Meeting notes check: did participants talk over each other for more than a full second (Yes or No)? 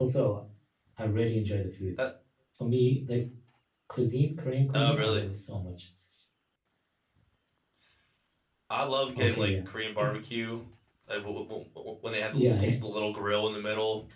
No